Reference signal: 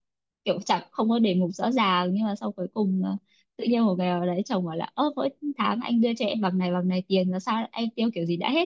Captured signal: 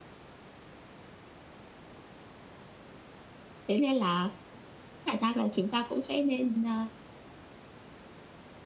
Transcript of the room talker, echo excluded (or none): thế nên là khả năng là chúng ta cũng sẽ nên ờ,